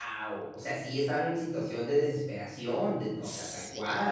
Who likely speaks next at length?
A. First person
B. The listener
B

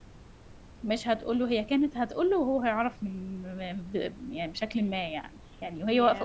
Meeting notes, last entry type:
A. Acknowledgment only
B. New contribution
A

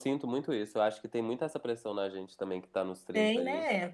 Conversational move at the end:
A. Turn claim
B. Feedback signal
B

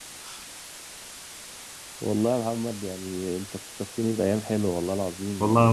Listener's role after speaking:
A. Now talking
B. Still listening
A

